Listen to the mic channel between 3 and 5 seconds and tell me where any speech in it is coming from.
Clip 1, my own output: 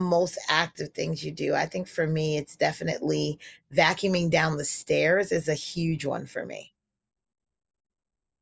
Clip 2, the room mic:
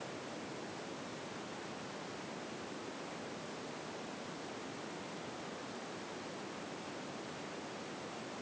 neither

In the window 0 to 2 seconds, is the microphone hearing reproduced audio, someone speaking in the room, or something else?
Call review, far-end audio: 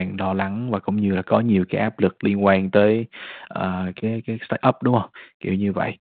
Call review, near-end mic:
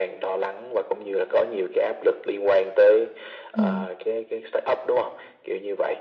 echo only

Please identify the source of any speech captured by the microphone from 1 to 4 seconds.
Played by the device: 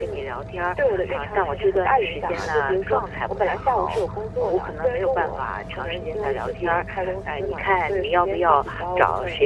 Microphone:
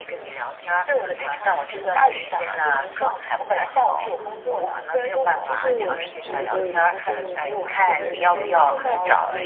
echo only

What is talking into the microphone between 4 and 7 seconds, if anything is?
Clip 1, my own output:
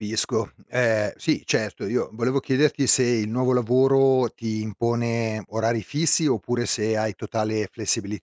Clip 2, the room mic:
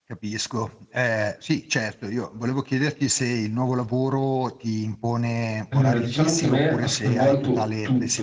both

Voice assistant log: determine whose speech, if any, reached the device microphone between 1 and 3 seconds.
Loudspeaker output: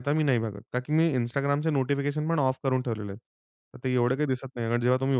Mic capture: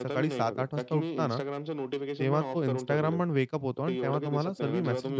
both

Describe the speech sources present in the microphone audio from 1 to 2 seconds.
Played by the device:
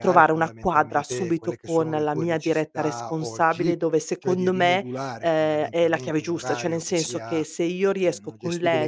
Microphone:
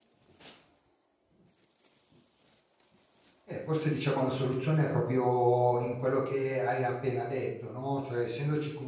neither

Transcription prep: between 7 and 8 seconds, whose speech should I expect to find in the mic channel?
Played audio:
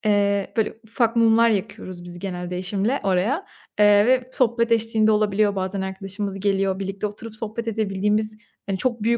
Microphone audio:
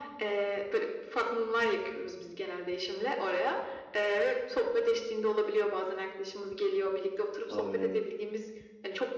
both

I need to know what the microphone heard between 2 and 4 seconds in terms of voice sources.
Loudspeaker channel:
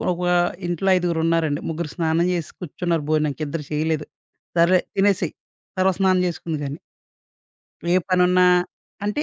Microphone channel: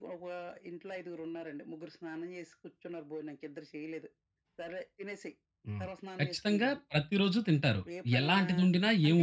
echo only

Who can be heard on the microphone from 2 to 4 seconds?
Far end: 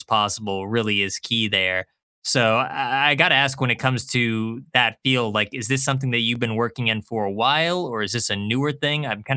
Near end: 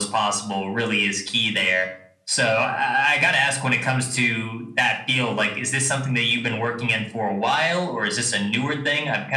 echo only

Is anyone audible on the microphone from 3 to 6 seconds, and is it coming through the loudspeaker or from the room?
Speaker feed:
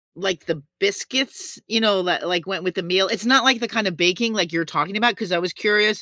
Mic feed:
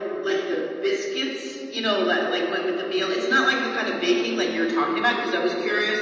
echo only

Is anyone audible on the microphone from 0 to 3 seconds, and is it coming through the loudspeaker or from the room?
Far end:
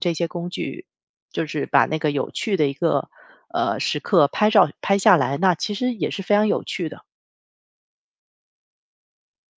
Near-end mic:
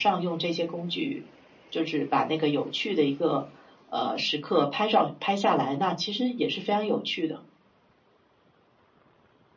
echo only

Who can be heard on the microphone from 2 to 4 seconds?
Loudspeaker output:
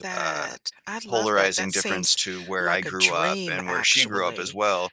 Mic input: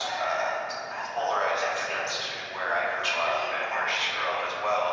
echo only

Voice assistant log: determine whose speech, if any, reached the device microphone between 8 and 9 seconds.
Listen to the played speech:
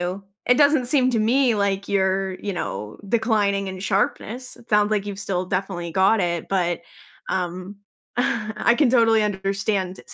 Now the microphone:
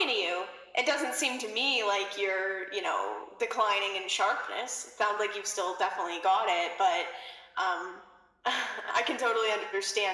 echo only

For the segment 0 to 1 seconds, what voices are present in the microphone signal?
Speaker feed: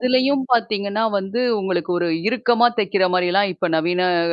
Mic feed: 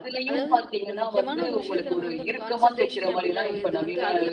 both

